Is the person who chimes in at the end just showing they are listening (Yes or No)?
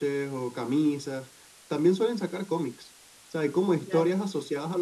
Yes